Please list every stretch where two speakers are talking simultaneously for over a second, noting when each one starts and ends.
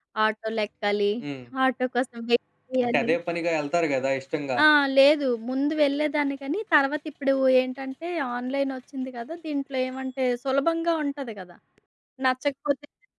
none

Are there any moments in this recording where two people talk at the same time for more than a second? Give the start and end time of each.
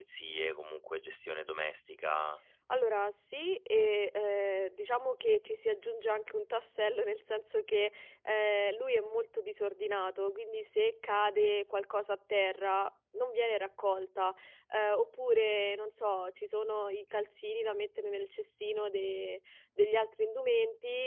none

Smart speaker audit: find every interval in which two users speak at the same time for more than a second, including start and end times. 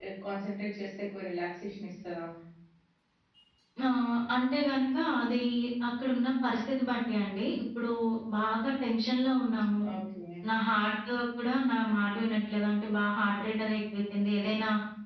none

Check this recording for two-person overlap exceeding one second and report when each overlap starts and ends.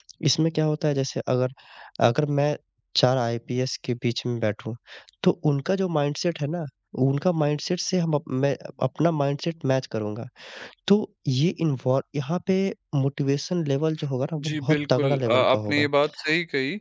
14.5-15.9

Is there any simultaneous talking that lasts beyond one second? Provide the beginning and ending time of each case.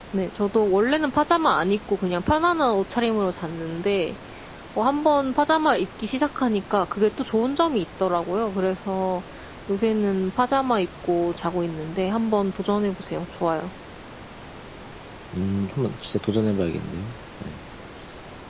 none

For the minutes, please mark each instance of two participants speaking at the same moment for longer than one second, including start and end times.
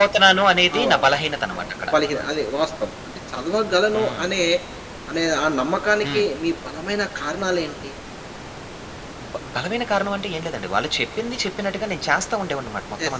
none

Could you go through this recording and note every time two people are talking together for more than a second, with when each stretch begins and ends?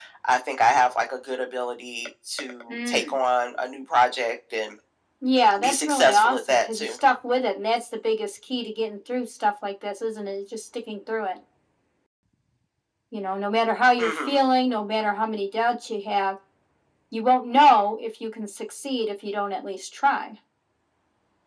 5.6-7.0

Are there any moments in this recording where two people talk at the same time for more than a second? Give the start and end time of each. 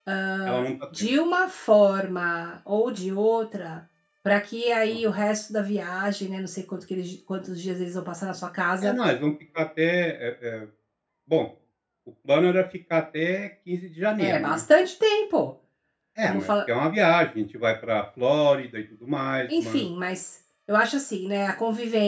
none

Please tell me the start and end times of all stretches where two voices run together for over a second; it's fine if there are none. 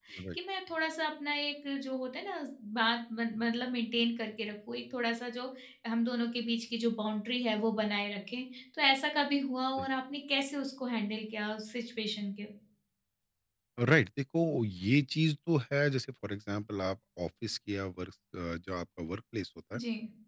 none

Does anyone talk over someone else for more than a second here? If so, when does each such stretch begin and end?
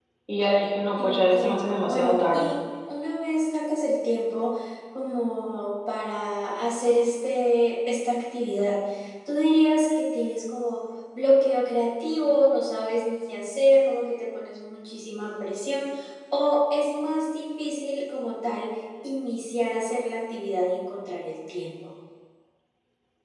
1.0-2.5

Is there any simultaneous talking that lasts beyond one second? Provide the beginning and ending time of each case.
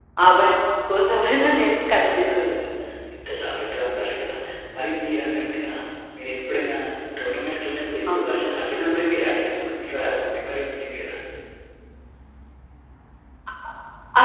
1.2-2.6

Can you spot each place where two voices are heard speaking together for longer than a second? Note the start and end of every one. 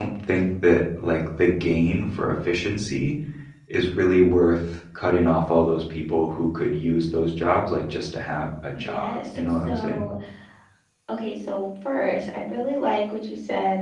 8.7-10.1

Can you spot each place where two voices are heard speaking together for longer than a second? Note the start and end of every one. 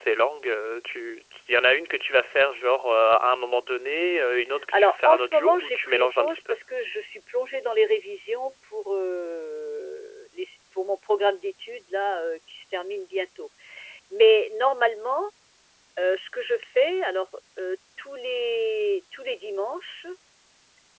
4.7-6.5

